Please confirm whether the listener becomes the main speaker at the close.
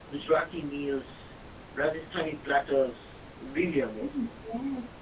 Yes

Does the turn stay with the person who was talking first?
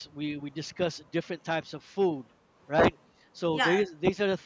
Yes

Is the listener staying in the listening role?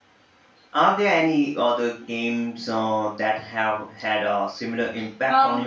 No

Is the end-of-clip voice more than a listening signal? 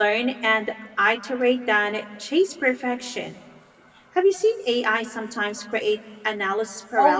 Yes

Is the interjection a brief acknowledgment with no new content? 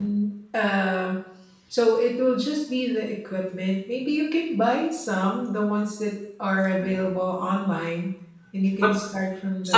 No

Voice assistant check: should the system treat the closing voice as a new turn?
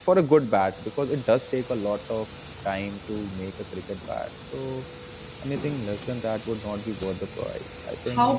Yes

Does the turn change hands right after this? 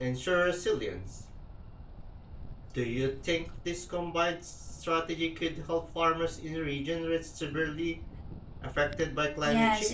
Yes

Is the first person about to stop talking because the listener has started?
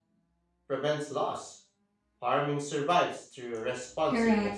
Yes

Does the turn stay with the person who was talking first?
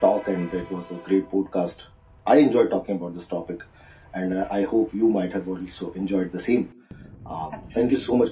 Yes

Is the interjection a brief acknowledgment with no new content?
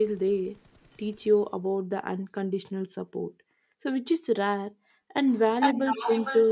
Yes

